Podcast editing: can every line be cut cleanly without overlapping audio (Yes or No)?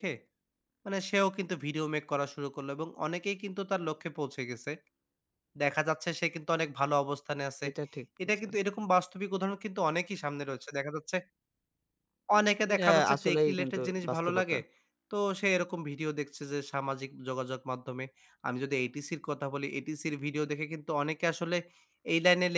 No